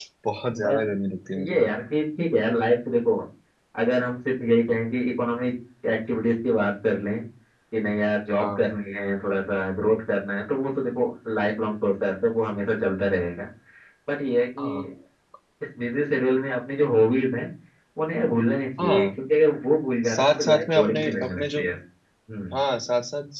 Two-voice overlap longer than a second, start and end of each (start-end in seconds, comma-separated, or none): 20.1-21.6